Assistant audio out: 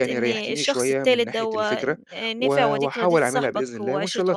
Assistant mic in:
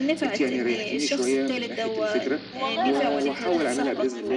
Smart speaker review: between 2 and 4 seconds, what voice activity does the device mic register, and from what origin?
both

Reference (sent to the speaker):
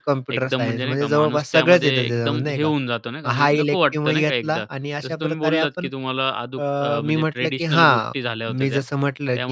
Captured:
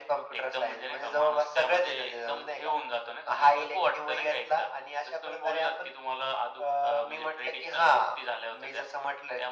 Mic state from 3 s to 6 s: echo only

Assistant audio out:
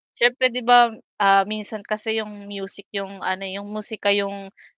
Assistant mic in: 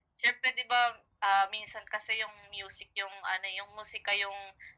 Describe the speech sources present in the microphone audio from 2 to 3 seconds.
echo only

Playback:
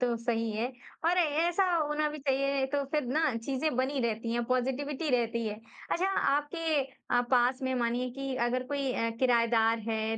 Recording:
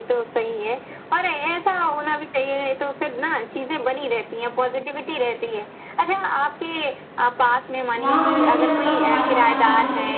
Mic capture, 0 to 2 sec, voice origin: echo only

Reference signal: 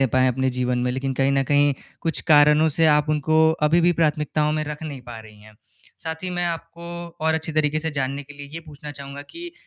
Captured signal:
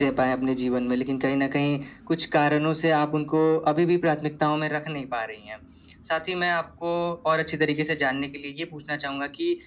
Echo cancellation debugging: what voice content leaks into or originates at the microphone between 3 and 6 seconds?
echo only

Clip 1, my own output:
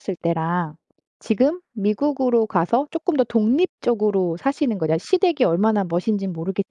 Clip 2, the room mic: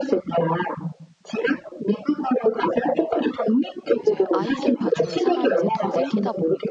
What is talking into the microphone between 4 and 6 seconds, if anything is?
both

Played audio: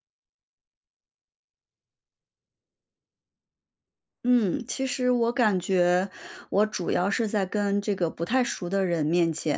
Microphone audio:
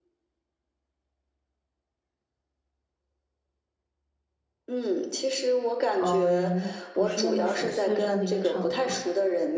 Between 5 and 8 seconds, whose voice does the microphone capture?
both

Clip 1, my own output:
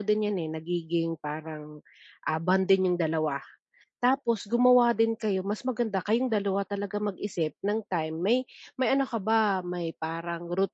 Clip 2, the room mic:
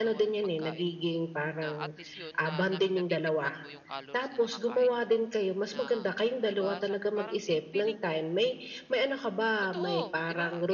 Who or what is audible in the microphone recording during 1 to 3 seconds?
both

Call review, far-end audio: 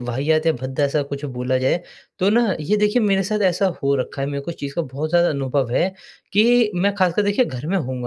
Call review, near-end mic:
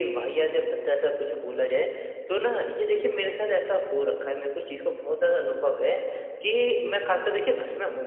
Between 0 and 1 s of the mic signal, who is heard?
echo only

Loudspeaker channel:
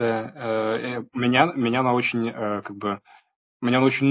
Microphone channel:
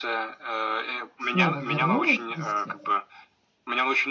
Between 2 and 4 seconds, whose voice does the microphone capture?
both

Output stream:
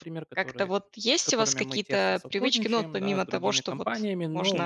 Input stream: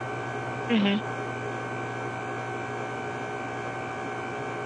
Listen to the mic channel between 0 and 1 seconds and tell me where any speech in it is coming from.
user only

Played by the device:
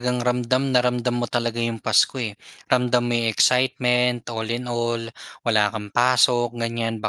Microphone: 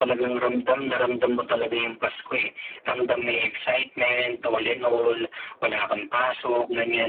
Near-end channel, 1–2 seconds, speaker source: echo only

